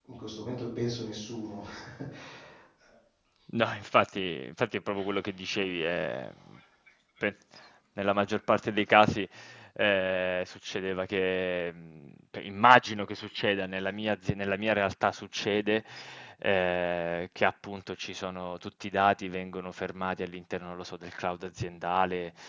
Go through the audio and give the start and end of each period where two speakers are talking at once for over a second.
none

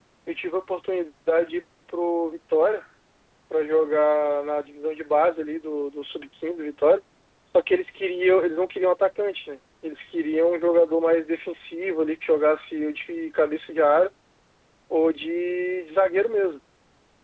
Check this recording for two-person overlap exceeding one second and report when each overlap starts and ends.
none

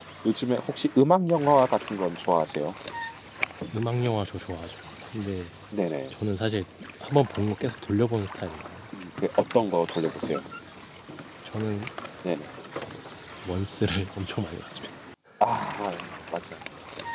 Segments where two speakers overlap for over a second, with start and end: none

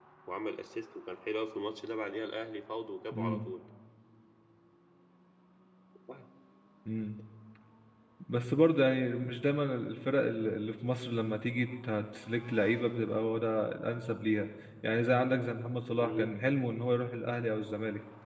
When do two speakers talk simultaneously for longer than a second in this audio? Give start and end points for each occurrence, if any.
none

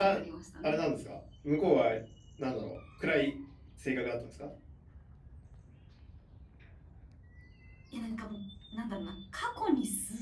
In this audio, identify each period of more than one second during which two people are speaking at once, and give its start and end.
none

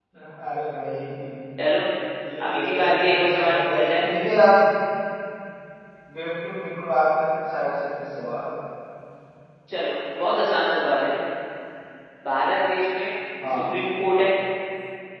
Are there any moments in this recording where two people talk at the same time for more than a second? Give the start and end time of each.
2.5-4.1

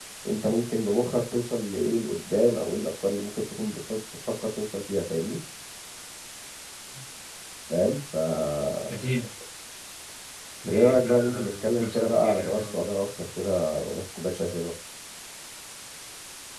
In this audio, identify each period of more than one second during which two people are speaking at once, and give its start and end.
10.7-12.8

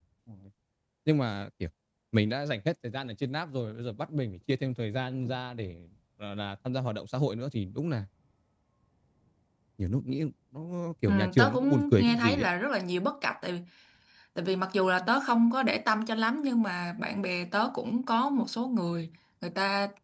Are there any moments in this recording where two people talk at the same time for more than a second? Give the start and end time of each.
11.1-12.5

